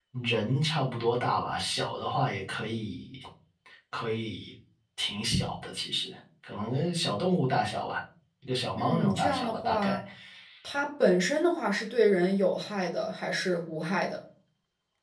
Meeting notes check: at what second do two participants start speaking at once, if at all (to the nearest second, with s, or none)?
9 s